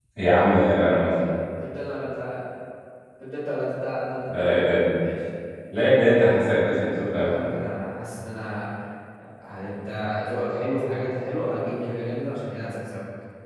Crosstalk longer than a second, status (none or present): none